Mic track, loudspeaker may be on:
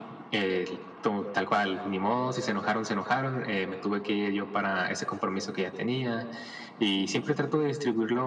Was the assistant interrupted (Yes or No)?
No